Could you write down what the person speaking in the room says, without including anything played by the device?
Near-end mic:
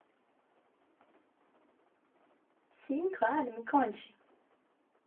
Sim, claro, me conte.

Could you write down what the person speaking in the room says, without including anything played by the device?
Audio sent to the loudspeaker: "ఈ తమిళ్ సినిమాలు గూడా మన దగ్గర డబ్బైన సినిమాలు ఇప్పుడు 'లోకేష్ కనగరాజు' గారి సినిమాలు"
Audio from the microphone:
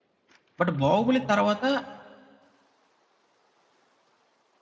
బట్ 'బాహుబలి' తర్వాత

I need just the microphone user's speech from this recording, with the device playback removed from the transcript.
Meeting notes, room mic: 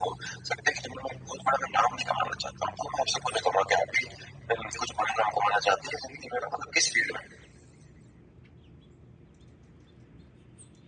none

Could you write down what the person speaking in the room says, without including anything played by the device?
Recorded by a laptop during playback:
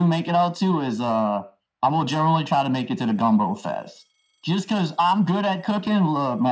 none

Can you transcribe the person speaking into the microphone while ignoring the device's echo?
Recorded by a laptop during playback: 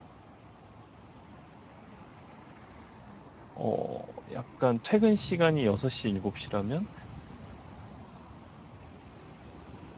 어 약간 퇴근 시간이 6 시, 7 시라면

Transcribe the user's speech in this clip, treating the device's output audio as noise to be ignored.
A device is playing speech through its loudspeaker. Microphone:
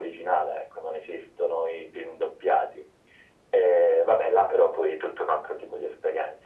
none

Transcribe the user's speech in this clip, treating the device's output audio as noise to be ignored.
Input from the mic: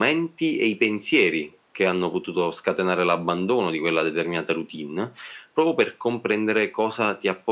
none

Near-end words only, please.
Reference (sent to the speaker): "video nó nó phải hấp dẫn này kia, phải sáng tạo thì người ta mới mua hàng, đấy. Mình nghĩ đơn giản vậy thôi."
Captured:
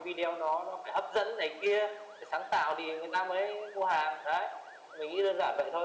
none

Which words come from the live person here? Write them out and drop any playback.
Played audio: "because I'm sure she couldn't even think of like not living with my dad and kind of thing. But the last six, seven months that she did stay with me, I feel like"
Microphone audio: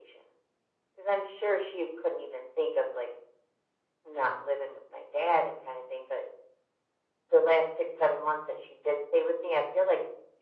none

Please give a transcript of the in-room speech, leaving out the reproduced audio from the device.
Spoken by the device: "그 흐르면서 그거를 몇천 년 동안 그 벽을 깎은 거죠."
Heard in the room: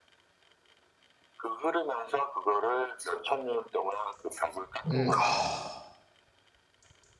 음. 아.

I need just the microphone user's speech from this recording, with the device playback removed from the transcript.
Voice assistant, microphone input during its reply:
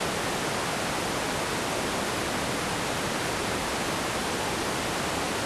none

